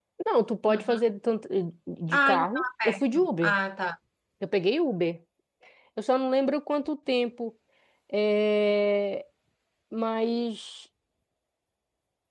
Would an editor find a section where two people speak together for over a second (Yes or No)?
Yes